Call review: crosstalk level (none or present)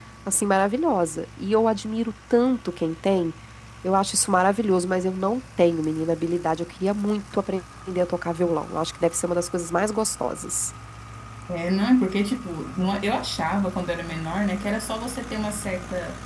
none